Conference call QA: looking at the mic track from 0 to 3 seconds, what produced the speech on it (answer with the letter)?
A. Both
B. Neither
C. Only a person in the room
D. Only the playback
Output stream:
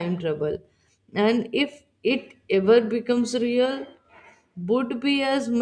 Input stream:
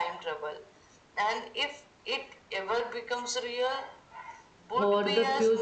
D